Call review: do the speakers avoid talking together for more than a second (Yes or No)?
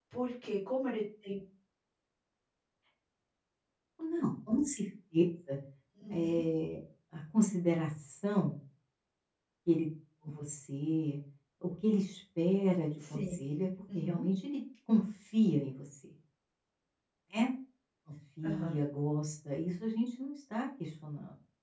Yes